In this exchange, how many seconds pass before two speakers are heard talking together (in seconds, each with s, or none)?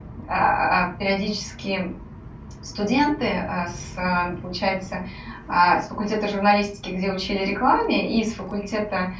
none